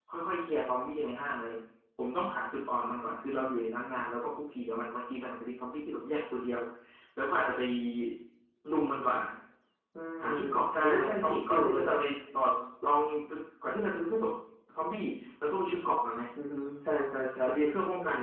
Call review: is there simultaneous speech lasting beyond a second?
Yes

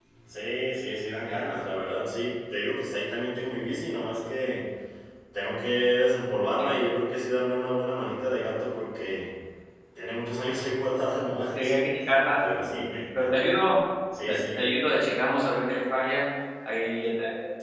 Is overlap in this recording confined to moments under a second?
Yes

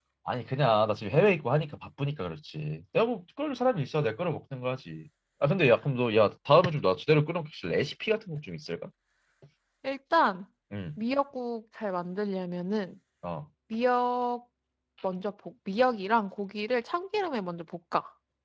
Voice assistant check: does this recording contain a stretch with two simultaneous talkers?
No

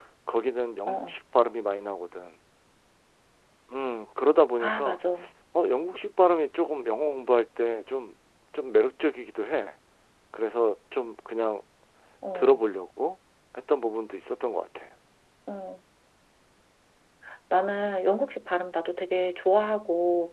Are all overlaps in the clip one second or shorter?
Yes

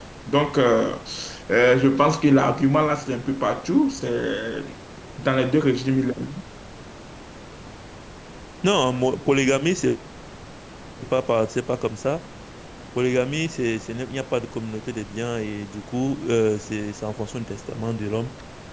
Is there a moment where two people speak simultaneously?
No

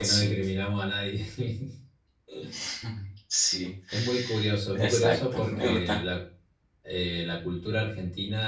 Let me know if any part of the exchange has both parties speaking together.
Yes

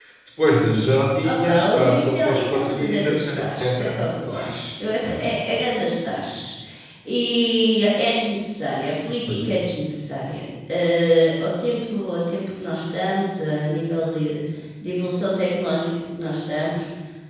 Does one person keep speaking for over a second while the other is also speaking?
Yes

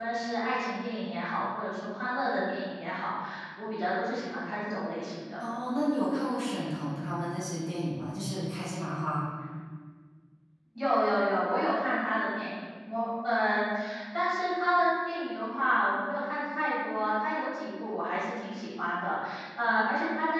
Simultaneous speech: No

